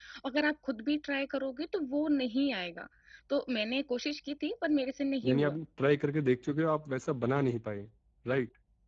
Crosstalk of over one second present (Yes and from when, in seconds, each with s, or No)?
No